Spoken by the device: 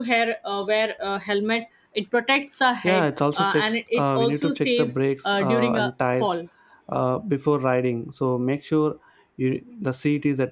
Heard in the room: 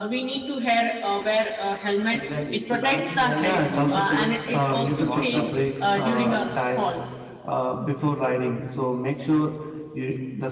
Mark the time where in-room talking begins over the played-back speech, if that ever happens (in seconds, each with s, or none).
2.1 s